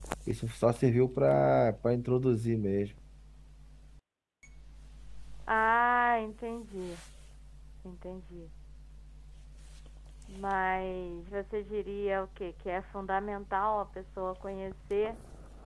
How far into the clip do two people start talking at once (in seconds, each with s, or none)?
none